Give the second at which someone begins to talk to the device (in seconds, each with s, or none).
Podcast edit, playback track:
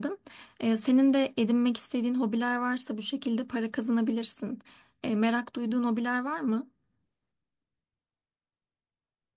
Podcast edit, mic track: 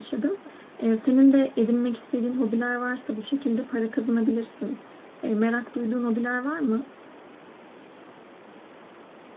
none